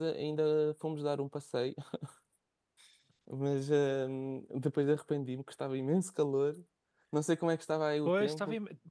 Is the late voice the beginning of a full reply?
Yes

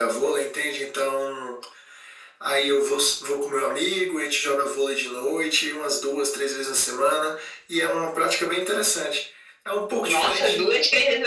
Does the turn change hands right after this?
Yes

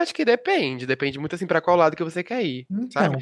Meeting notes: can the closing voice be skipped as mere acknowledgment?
Yes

